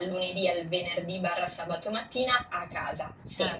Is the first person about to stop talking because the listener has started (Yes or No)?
No